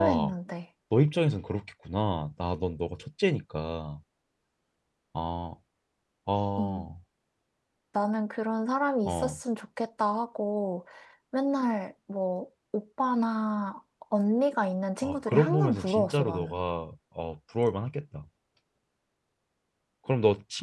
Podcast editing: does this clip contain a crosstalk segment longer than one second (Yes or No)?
Yes